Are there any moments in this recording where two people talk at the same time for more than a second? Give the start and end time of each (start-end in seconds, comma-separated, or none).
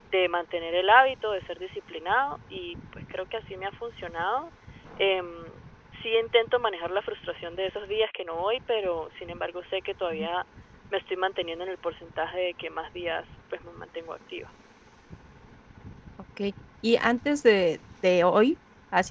none